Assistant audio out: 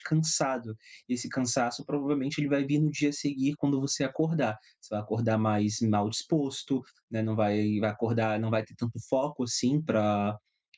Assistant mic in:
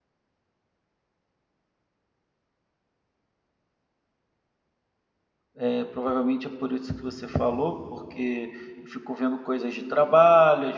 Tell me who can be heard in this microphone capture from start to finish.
user only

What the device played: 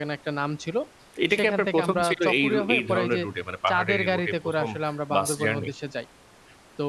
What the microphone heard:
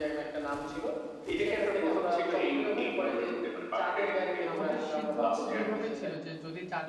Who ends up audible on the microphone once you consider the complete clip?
both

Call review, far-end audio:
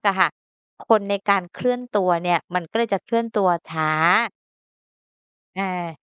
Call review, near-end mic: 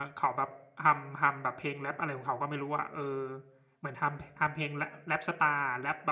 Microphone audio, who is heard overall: user only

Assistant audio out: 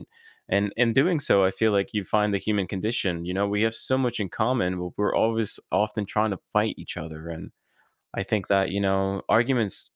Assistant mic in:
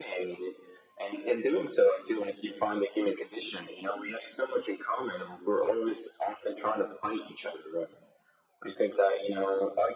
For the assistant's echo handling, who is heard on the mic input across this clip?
echo only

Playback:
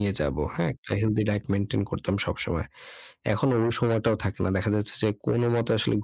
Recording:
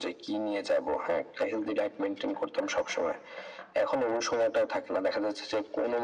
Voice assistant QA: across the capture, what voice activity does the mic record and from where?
echo only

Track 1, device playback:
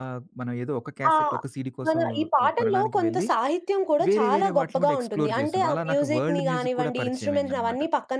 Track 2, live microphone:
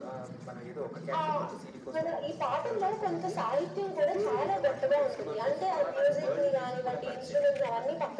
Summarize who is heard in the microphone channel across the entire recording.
echo only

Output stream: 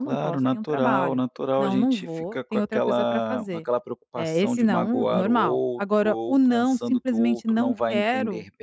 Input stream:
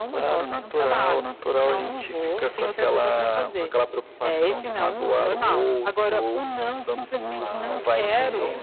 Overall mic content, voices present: both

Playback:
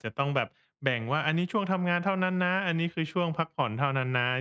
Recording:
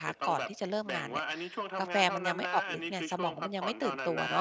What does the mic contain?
both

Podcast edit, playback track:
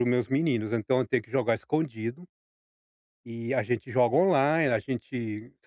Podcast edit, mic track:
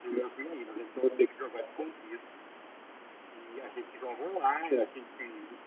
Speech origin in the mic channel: echo only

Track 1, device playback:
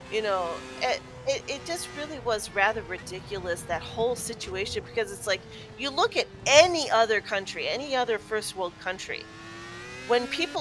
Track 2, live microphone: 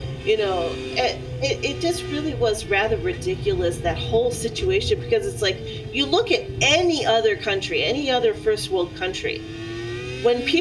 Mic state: echo only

